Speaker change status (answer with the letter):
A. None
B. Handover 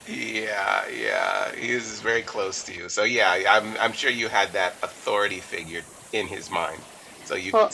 A